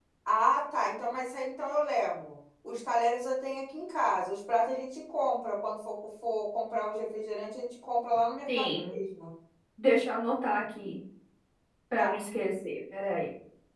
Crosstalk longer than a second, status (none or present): none